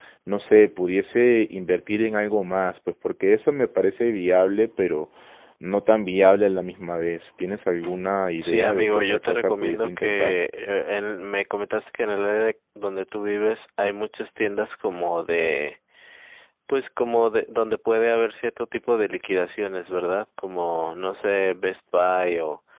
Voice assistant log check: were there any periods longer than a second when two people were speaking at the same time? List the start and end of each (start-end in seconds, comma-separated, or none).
8.4-10.3